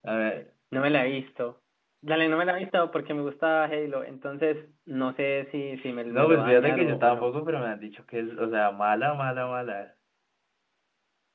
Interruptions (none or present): present